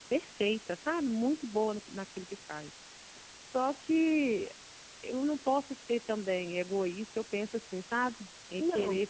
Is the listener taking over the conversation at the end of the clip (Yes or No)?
No